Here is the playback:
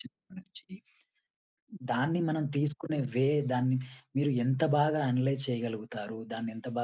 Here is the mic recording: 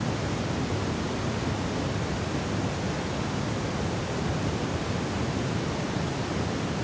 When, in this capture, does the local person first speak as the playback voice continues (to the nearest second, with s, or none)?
none